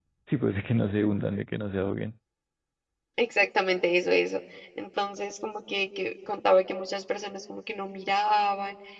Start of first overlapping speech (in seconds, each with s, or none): none